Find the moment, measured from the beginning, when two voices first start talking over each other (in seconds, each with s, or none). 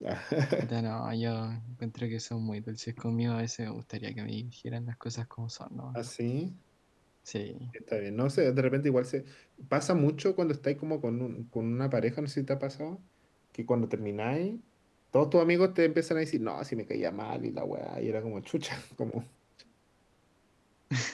none